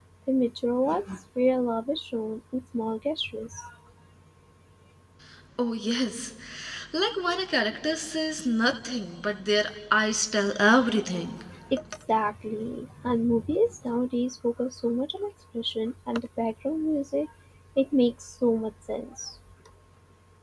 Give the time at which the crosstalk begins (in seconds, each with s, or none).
none